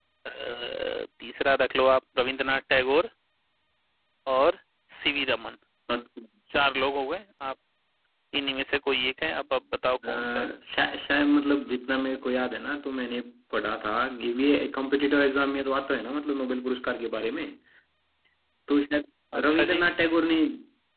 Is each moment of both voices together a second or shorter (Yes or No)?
Yes